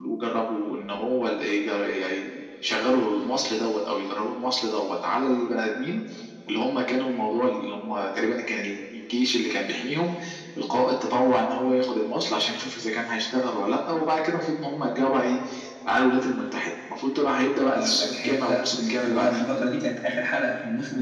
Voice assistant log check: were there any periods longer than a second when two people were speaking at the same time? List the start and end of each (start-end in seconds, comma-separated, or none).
17.7-19.4